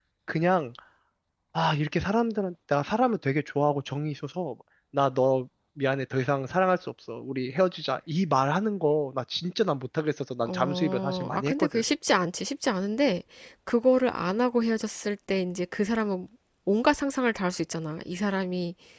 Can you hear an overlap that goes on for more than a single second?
Yes, from 10.4 s

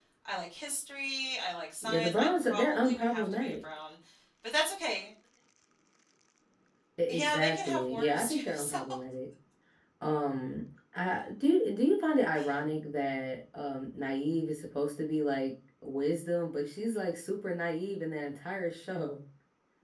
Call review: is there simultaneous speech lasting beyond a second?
Yes, from 1.8 s

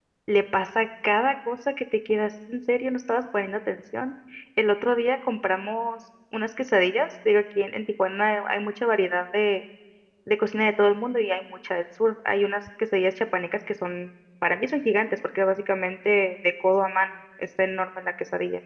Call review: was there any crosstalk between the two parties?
No

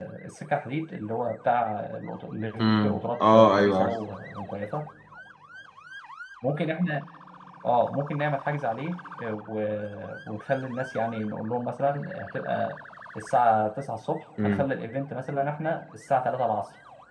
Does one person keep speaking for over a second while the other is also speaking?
Yes, from 2.6 s

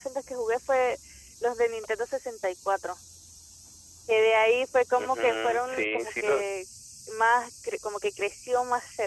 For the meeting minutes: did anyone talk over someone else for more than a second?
Yes, from 5.0 s

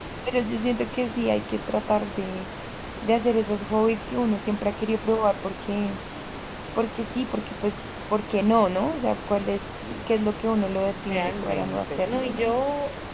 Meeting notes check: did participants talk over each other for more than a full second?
Yes, from 11.1 s

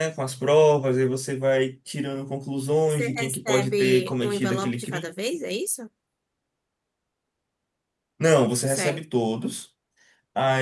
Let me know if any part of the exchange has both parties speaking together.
Yes, from 2.9 s

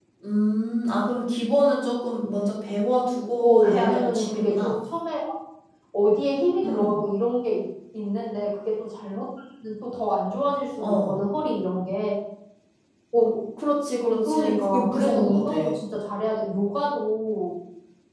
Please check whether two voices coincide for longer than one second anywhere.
Yes, from 3.4 s

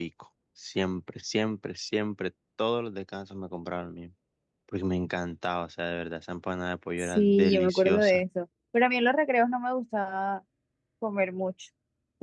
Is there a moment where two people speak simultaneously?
Yes, from 7.0 s

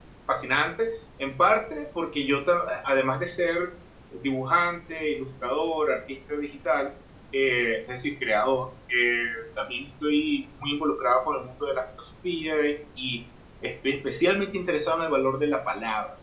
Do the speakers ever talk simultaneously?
No

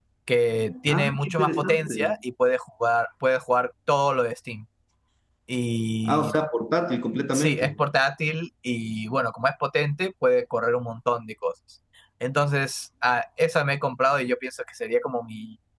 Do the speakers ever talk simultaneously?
Yes, from 0.9 s

